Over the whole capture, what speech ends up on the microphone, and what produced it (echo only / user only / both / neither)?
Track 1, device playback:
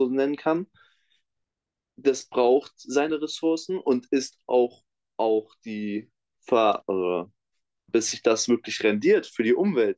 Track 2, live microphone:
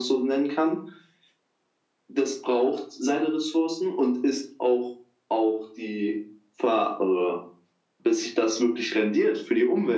echo only